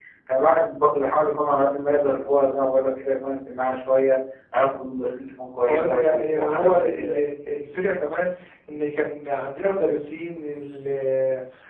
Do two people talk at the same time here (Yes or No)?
Yes